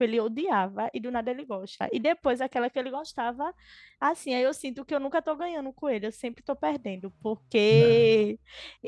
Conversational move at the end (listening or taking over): listening